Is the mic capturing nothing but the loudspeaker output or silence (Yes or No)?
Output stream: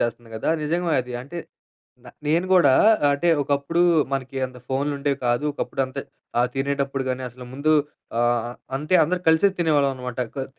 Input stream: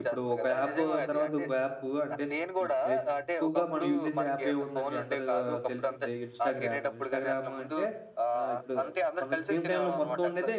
No